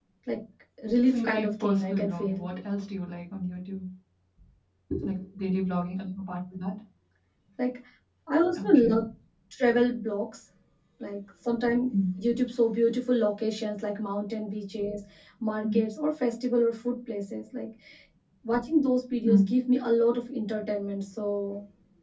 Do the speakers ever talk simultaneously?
Yes, from 1.1 s

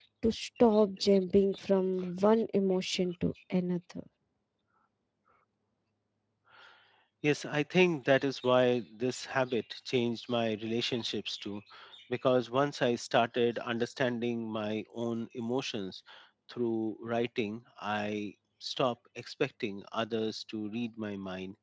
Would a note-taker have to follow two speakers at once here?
No

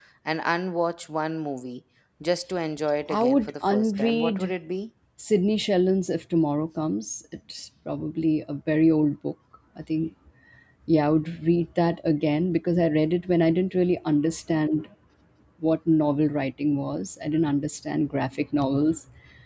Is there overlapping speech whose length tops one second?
Yes, from 3.1 s

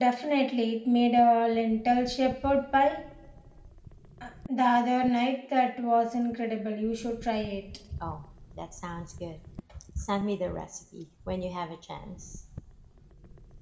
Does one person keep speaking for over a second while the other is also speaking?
No

